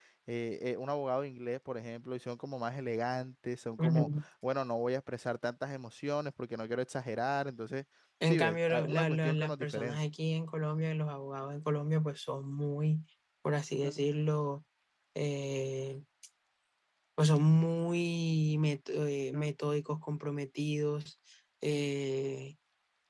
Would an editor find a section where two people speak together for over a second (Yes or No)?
Yes